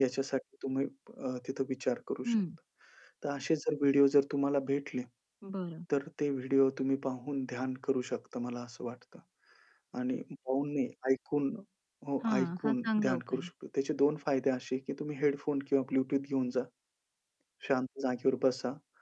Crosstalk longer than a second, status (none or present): present